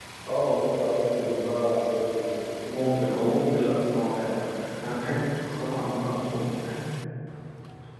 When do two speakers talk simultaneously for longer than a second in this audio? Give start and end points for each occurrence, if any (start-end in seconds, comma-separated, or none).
none